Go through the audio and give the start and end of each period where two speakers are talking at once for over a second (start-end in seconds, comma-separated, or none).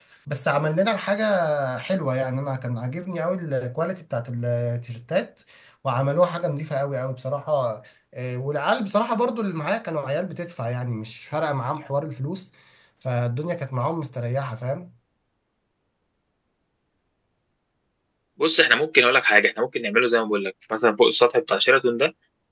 none